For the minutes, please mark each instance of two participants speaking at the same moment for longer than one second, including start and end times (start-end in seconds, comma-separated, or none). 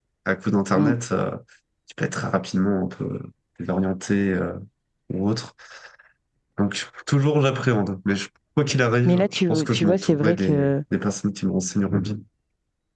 9.0-10.8